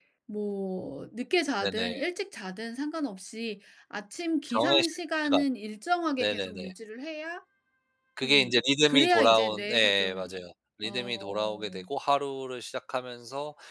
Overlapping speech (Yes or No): Yes